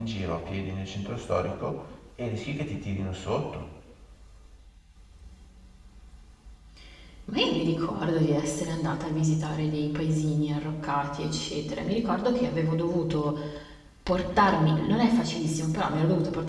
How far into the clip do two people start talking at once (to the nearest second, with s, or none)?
none